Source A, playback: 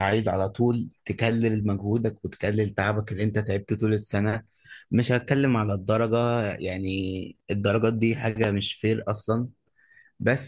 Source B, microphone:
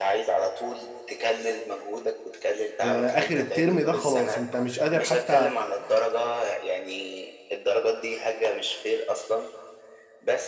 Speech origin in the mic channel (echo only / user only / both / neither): both